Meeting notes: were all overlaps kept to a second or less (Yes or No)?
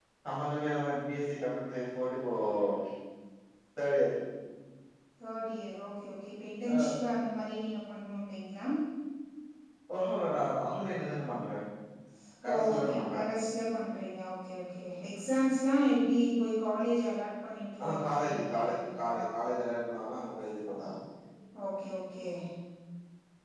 No